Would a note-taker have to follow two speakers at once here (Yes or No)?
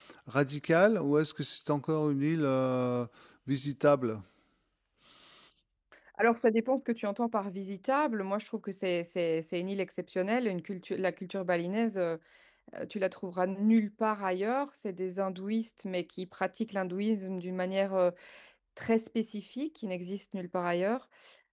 No